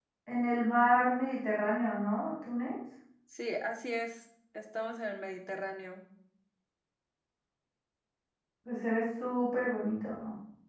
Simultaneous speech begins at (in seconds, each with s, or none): none